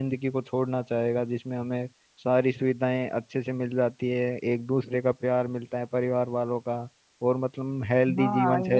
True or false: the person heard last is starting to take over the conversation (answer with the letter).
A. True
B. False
A